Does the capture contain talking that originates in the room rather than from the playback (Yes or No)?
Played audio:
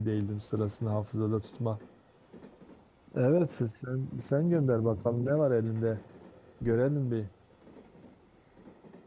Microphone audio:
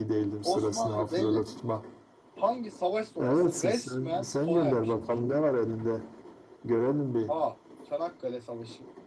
Yes